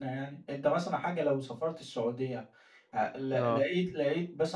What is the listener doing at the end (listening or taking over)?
listening